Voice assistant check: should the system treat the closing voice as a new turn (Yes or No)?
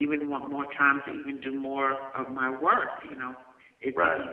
No